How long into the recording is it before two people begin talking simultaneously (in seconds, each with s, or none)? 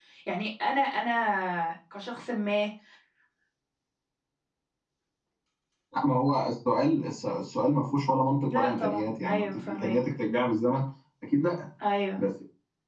8.4 s